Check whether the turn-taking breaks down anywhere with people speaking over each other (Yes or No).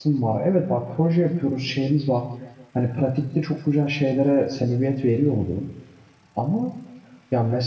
No